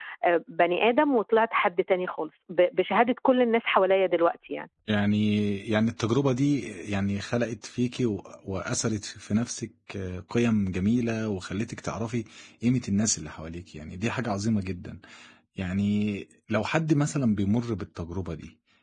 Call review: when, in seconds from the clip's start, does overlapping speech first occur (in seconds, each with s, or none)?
none